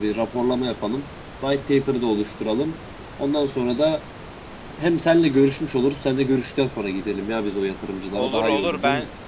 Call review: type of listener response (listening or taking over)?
taking over